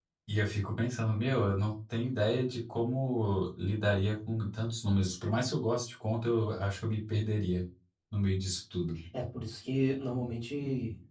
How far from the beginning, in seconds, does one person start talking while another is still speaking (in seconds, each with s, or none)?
none